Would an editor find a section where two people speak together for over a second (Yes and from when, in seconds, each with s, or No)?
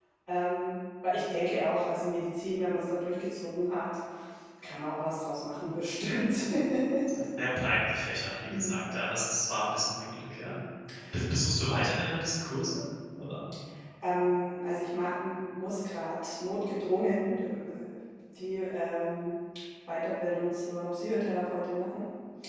No